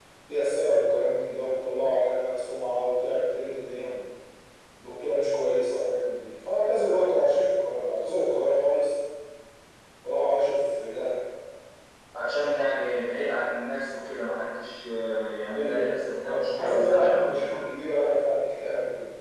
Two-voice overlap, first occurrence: 15.5 s

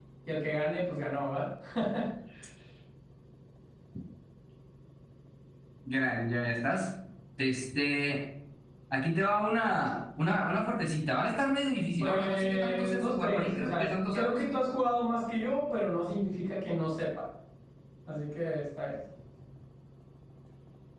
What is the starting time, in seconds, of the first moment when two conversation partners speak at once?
11.8 s

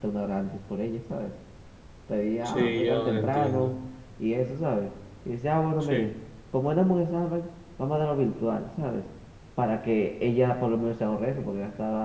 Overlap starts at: 2.4 s

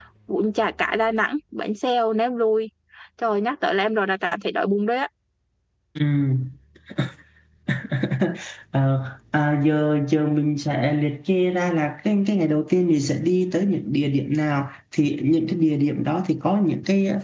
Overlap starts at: none

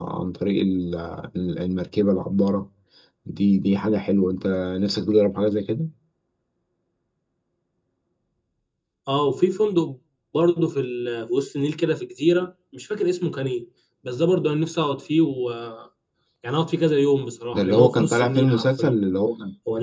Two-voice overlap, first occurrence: 17.5 s

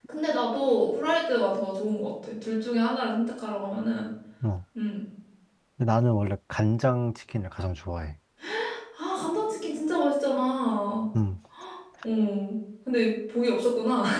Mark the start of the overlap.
none

